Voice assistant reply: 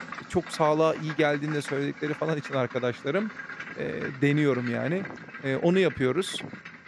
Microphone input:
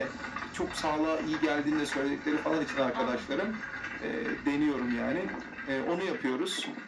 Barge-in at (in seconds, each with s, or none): 2.9 s